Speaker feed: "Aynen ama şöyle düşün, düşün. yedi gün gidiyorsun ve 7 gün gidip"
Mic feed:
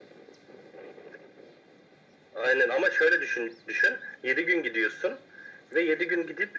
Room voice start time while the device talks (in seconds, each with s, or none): none